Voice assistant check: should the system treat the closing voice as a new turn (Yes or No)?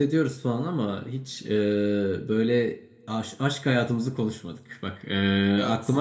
No